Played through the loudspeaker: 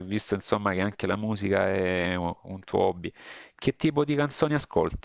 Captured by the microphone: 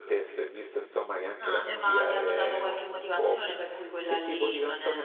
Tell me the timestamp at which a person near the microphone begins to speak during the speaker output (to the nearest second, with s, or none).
1 s